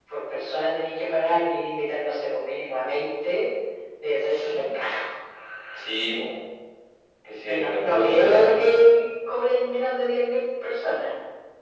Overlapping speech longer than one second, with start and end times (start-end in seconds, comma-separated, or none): 7.4-8.8